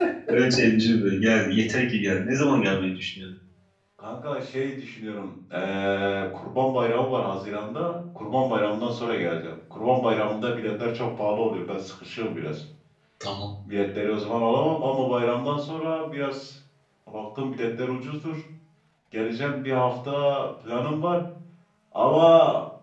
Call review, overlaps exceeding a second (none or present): none